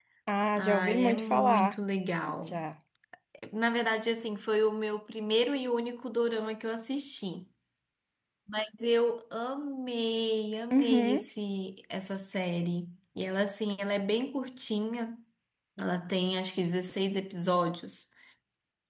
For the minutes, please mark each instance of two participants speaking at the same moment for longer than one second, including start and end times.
0.6-1.8

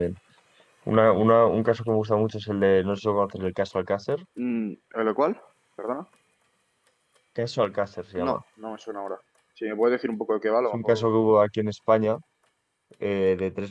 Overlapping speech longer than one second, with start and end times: none

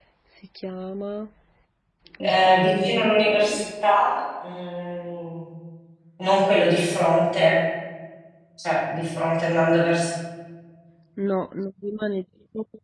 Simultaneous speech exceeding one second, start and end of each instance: 2.2-3.7

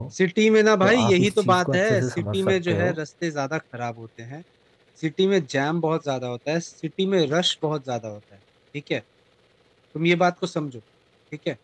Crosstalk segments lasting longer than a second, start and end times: 0.8-2.9

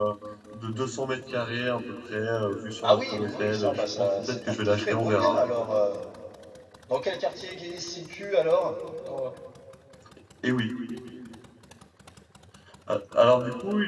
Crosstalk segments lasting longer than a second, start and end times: 2.8-5.4

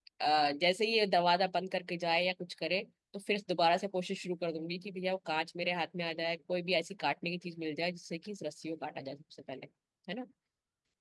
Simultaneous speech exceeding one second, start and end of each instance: none

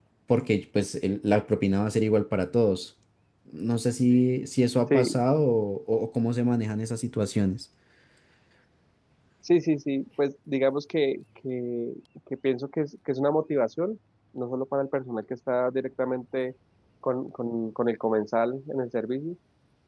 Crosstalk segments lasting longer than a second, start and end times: none

